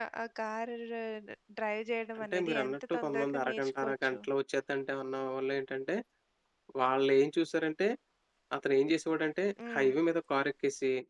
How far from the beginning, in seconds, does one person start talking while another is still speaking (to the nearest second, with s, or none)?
2 s